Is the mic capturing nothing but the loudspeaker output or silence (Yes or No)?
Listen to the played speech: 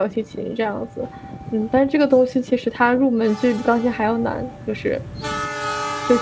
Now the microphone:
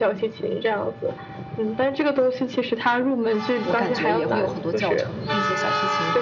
No